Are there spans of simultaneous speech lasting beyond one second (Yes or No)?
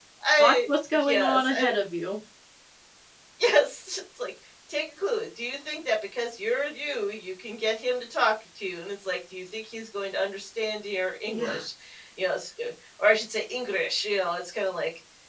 Yes